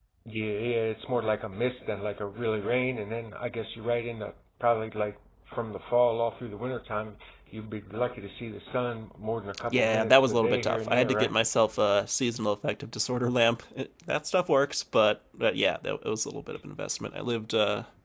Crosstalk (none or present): present